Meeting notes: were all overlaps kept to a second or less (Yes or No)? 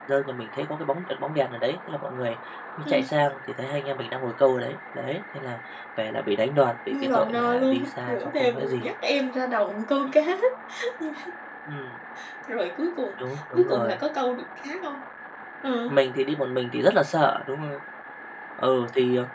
No